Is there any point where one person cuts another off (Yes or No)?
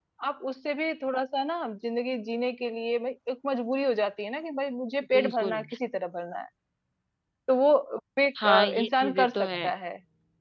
Yes